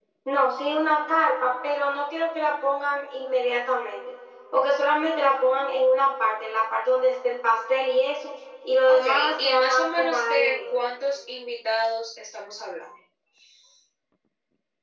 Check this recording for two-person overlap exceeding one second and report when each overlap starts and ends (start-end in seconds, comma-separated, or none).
8.9-10.8